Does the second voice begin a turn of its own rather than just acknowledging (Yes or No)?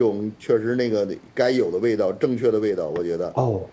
Yes